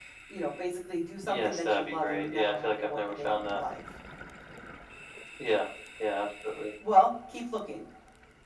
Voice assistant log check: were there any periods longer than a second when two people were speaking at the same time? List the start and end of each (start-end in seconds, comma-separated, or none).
1.3-3.6